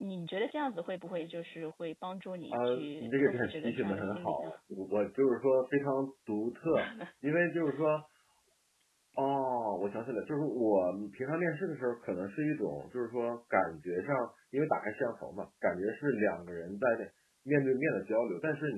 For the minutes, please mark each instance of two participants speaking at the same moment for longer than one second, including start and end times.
2.5-4.5

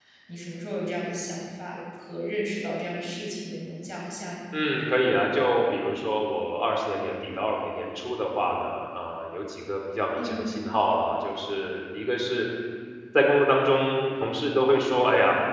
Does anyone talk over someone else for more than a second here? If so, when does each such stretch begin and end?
none

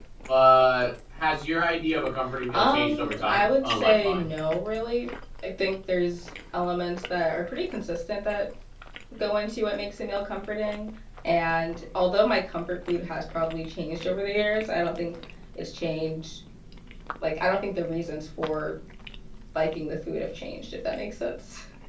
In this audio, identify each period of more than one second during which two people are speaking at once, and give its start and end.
2.5-4.3

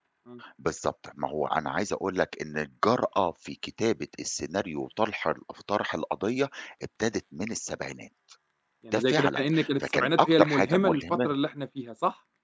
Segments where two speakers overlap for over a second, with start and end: 8.9-11.3

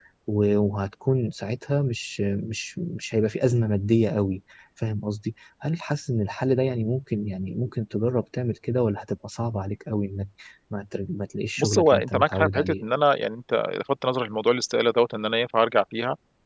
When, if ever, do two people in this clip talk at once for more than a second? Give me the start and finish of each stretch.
11.6-12.8

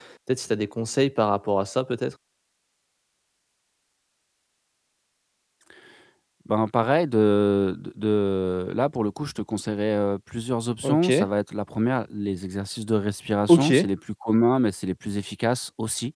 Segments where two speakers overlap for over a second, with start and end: none

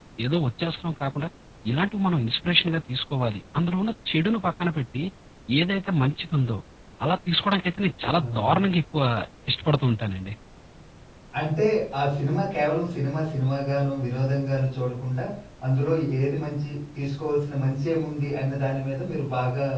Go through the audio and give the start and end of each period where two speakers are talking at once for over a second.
none

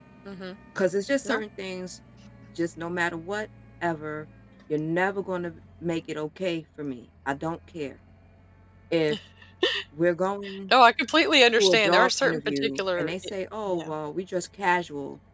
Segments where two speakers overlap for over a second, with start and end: 11.6-13.1

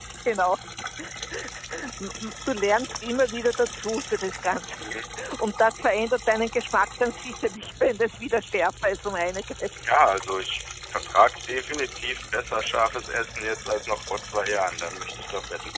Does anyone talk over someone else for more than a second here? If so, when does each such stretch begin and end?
none

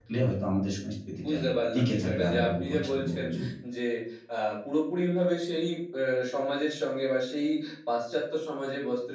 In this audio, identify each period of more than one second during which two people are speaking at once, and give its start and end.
1.7-3.2

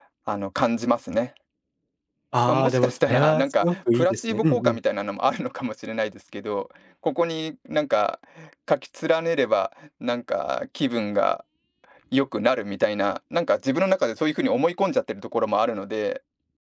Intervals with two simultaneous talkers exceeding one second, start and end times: 2.5-4.8

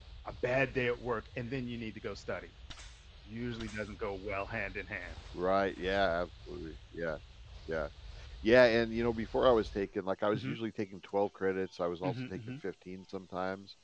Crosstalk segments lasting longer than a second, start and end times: none

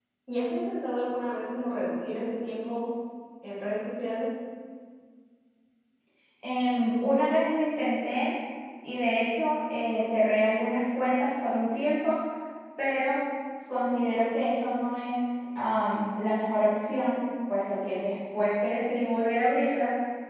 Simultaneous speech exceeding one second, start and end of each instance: none

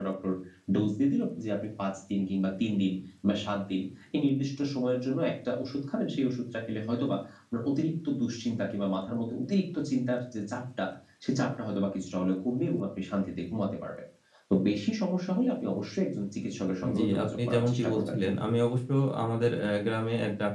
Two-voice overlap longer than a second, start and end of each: 17.0-18.2

